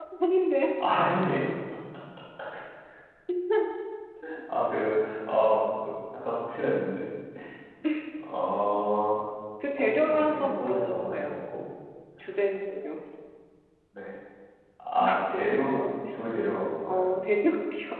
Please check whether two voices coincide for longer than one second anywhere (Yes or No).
Yes